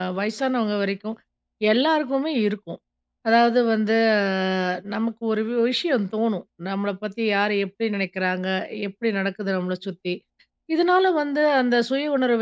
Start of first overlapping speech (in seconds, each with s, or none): none